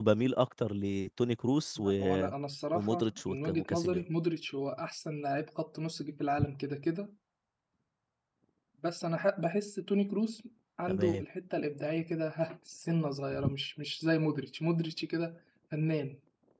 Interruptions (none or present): present